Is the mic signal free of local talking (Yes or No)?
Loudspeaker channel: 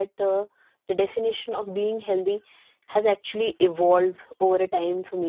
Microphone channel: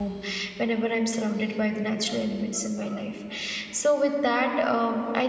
No